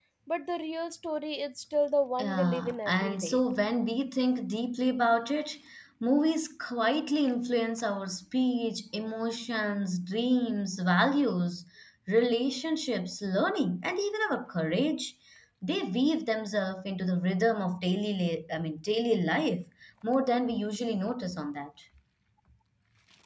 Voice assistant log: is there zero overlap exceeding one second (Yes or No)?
No